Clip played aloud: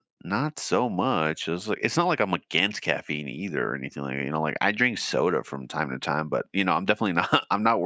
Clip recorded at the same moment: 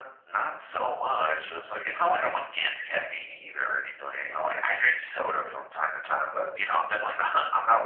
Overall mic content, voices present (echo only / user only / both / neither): echo only